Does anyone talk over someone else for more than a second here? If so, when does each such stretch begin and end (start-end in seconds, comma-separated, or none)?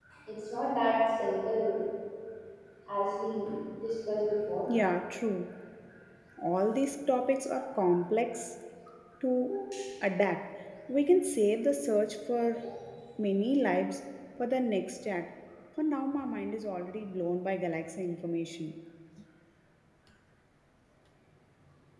none